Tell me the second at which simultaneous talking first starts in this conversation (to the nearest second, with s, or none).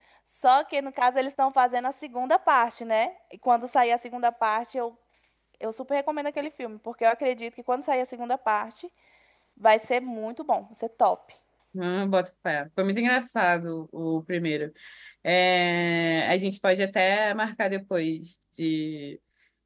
none